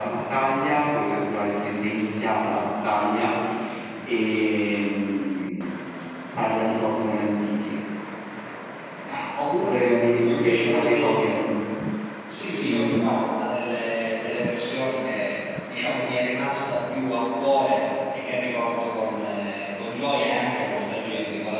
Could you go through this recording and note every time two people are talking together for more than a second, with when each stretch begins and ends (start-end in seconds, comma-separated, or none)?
9.5-11.3